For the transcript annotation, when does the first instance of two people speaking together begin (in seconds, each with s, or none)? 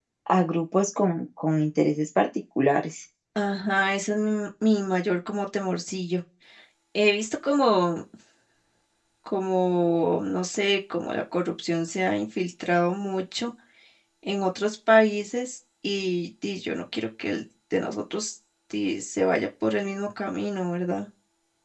none